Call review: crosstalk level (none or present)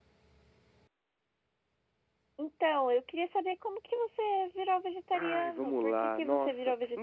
present